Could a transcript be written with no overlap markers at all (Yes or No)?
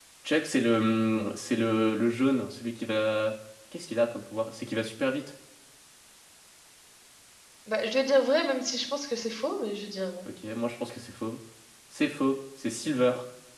Yes